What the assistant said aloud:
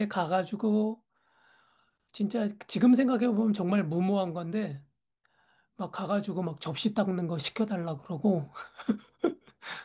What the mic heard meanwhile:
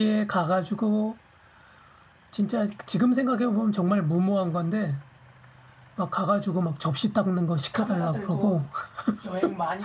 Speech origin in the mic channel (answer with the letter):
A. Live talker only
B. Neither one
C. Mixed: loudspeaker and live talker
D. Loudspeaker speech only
C